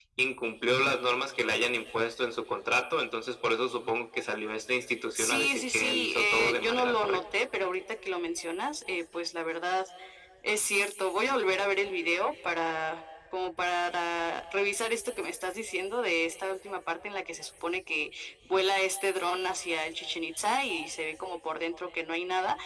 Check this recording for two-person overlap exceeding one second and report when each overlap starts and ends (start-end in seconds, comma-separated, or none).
5.2-7.2